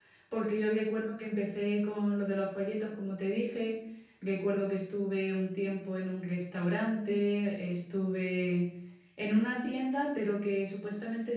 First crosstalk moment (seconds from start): none

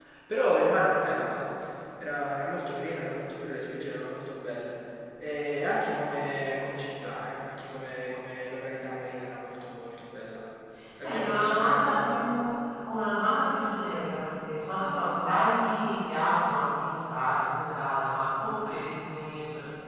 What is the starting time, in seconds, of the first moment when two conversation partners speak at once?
11.0 s

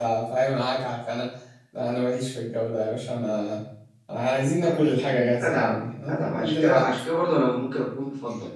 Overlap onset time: 4.6 s

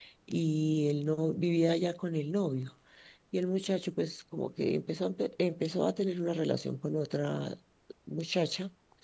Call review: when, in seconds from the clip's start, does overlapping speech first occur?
none

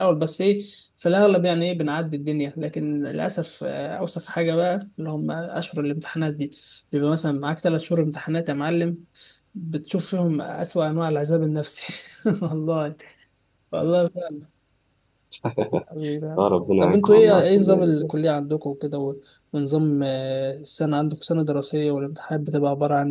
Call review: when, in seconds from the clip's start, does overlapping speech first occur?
16.4 s

